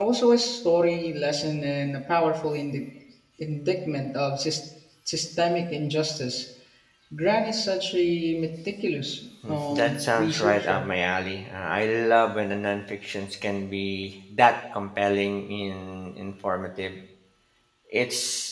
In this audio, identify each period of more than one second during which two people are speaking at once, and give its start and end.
9.5-10.9

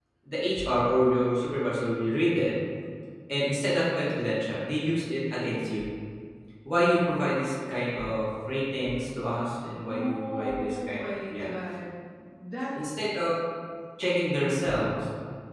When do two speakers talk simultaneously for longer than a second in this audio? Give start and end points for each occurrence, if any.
9.9-11.5

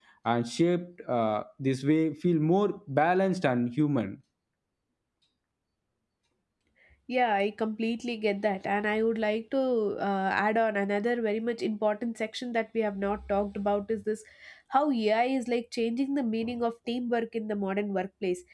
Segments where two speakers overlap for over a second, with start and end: none

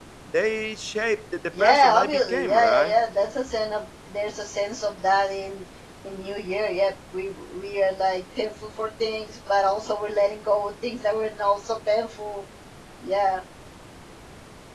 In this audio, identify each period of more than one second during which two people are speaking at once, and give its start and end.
1.6-2.9

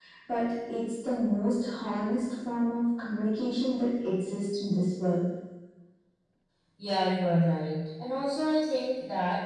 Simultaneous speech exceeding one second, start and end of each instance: none

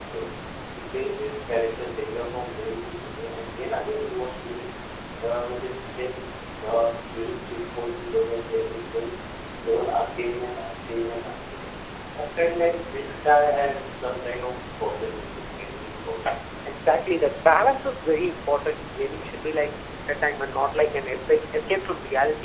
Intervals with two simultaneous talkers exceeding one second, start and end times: none

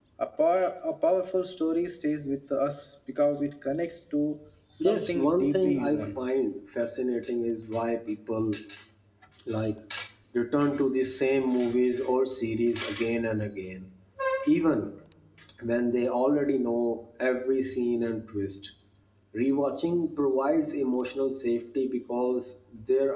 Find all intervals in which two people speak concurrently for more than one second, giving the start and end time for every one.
4.8-6.2

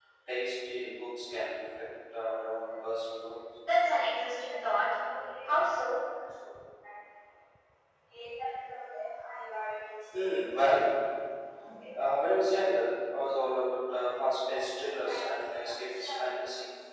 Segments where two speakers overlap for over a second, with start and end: none

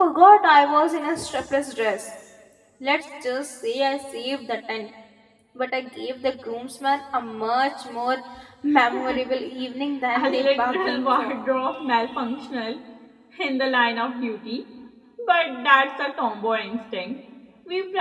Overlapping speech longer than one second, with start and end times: 10.1-11.3

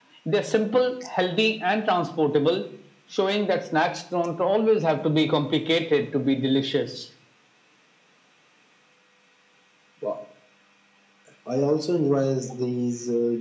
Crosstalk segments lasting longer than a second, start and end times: none

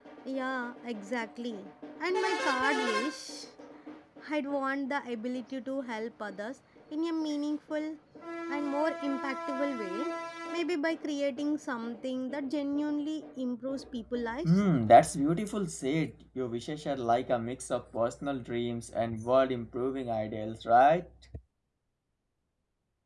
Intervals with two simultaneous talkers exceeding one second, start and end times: none

